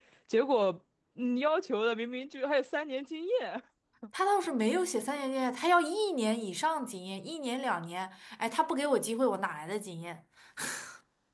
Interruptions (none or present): none